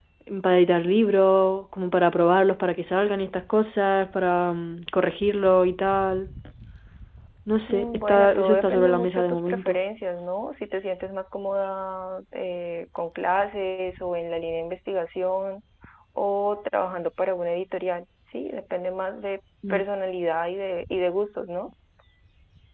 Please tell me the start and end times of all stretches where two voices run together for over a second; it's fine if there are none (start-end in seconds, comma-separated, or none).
7.7-9.8